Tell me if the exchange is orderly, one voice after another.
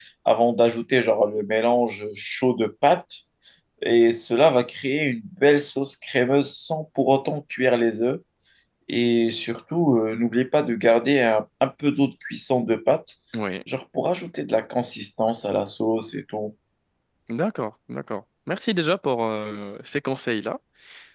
Yes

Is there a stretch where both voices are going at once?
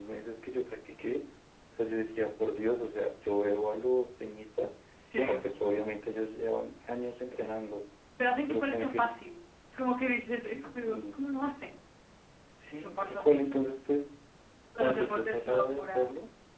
Yes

